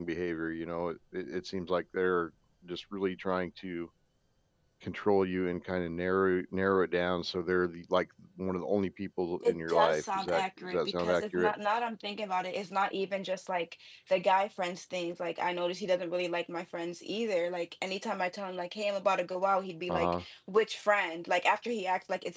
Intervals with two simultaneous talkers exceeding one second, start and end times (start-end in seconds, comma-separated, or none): 9.4-11.5